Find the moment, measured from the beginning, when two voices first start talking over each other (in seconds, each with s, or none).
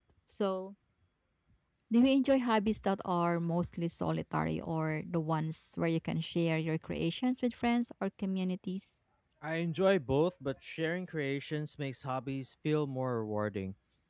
none